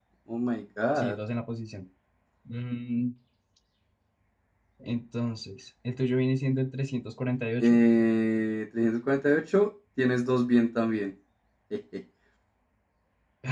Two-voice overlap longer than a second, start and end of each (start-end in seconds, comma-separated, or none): none